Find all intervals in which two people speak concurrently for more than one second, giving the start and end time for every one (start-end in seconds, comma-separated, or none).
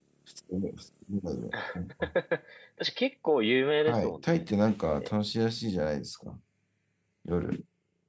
3.8-5.1